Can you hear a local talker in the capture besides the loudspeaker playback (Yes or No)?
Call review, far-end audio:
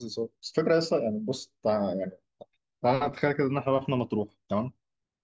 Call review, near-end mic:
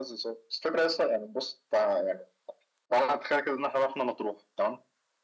No